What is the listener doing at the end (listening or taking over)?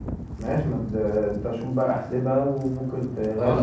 taking over